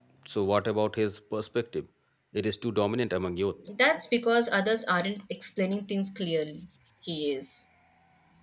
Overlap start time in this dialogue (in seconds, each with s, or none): none